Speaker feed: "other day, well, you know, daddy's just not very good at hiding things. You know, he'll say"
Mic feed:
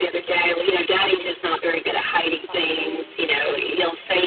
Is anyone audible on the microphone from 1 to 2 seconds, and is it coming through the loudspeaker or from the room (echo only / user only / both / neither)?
echo only